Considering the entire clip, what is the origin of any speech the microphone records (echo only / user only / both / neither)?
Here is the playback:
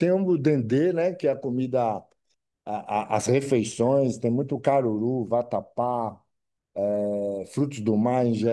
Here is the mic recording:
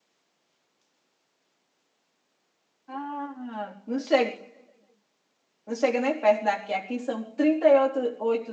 user only